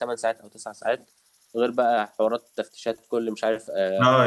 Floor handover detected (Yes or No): Yes